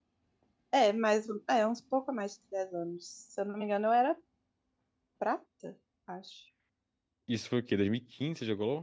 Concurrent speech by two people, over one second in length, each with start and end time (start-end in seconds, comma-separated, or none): none